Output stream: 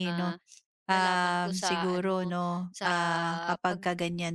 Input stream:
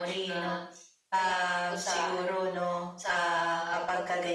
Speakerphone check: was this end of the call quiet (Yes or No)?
Yes